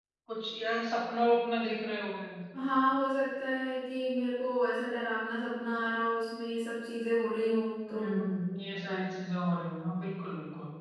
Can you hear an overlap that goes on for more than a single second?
No

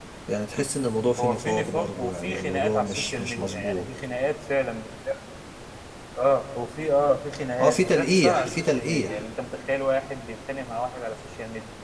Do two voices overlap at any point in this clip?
Yes, from 1.2 s

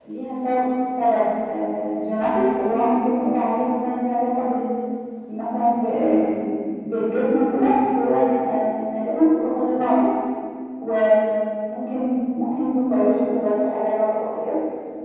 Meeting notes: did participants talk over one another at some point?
No

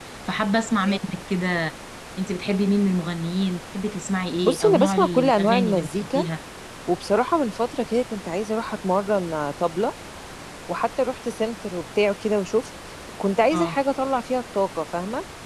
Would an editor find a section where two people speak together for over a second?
Yes, from 4.4 s

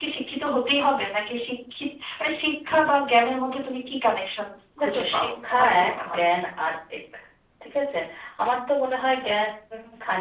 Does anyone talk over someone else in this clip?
Yes, from 4.8 s

